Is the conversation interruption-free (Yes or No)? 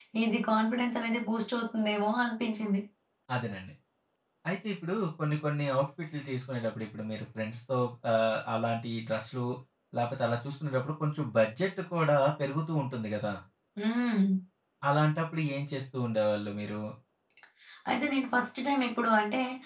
Yes